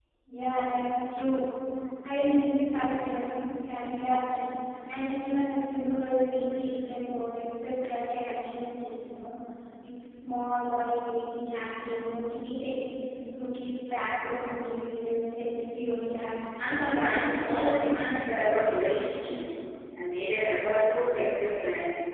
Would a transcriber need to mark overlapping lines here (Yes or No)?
Yes